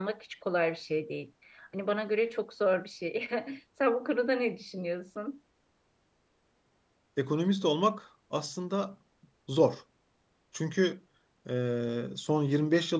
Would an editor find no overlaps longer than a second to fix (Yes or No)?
Yes